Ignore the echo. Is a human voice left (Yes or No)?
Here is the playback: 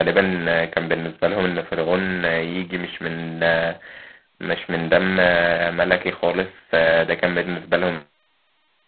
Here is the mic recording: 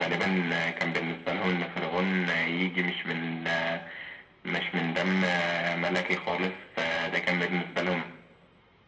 No